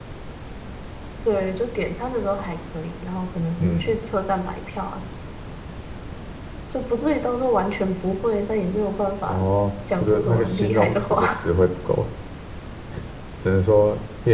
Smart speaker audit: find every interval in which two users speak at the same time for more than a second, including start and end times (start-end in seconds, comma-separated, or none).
10.0-11.4